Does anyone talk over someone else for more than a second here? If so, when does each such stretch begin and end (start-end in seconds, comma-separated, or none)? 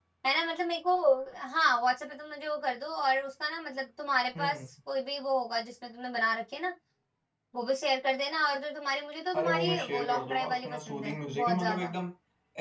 9.3-11.9